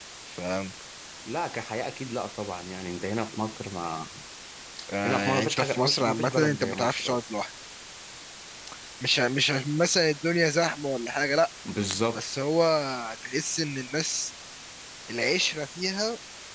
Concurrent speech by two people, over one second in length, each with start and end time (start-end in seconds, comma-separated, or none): 5.0-7.2